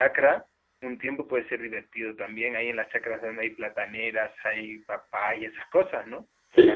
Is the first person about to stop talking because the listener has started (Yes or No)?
Yes